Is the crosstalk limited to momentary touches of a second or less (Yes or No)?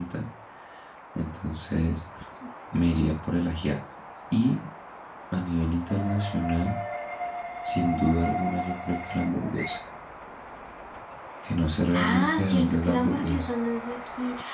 No